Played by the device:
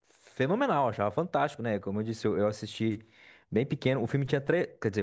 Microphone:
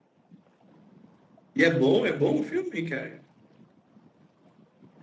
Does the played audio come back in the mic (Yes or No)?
No